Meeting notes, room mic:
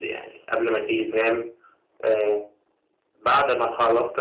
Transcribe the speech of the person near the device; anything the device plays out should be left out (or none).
none